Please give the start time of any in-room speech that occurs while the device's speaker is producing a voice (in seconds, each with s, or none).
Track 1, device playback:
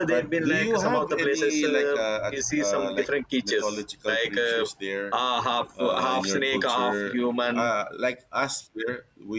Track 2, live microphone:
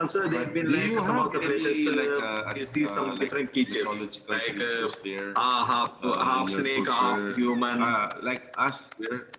none